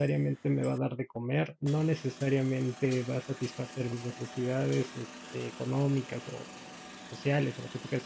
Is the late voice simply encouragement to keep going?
Yes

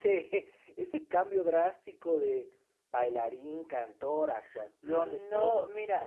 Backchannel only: No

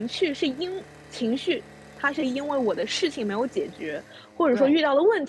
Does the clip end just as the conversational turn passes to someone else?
No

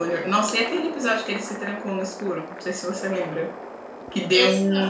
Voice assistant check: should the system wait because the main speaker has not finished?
Yes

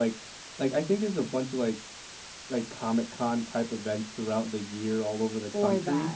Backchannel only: Yes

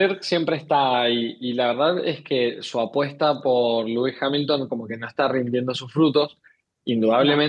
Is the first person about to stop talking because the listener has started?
No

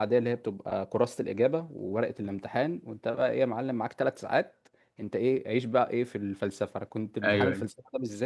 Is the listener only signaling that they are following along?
Yes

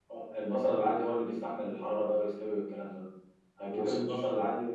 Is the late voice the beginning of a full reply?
No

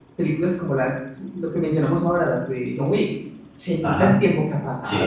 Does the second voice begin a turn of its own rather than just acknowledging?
Yes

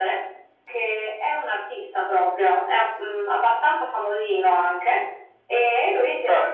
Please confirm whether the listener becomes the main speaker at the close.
Yes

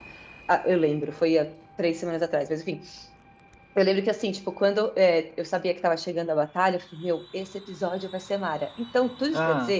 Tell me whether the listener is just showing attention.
Yes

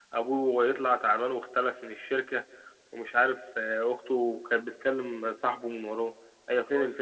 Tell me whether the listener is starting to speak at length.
Yes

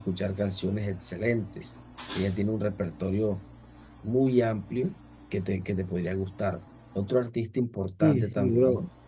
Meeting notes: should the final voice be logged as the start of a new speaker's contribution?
Yes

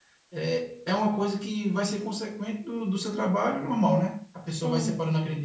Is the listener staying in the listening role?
Yes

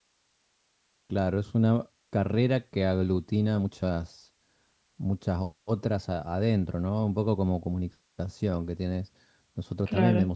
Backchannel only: Yes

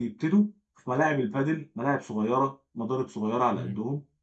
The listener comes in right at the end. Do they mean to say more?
No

